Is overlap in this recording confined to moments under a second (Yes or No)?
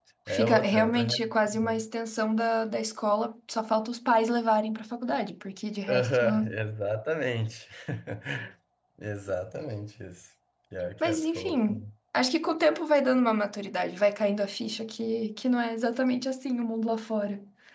No